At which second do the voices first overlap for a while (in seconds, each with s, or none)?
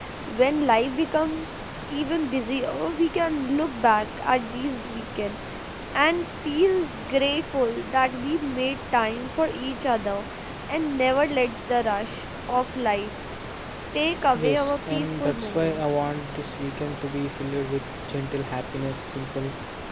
14.3 s